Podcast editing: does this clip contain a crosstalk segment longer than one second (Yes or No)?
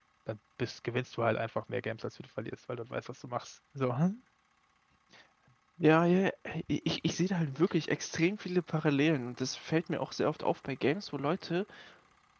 No